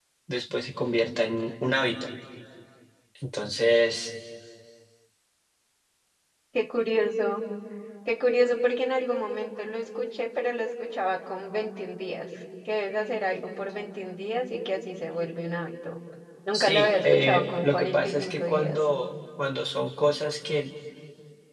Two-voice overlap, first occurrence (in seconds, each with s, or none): 16.5 s